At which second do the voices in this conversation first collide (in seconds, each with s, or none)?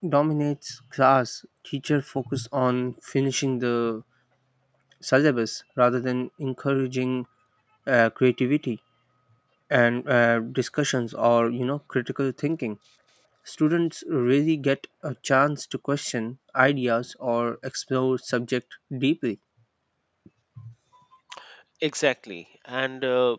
none